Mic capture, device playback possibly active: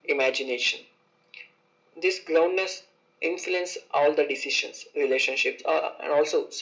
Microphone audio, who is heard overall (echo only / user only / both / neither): echo only